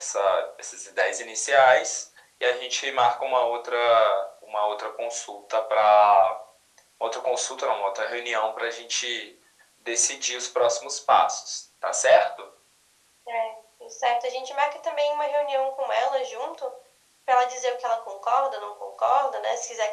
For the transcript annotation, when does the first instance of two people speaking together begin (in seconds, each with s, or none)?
none